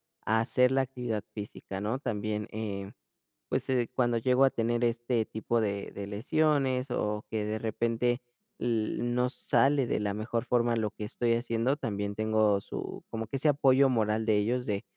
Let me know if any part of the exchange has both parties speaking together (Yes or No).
No